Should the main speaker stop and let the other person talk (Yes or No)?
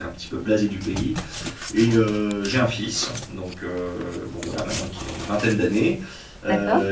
No